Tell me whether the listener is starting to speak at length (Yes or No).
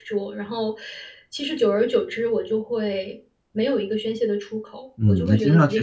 Yes